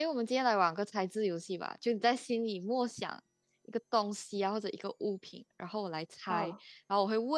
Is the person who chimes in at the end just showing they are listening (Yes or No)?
Yes